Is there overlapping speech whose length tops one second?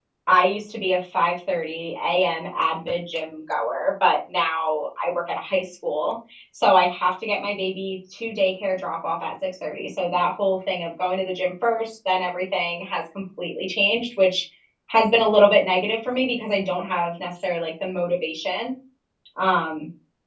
No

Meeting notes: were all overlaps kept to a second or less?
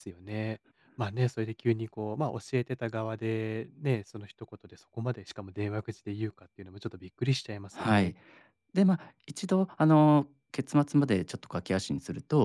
Yes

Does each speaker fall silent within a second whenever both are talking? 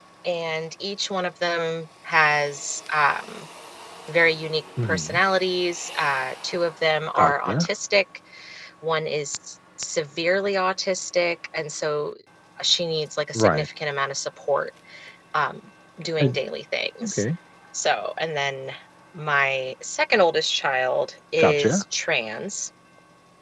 Yes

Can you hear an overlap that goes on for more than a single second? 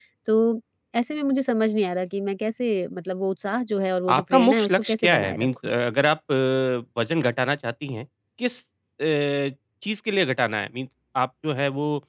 Yes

